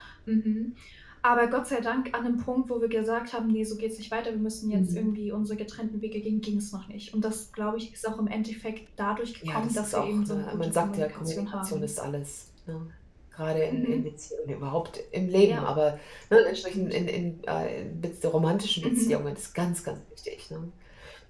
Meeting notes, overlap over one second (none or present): present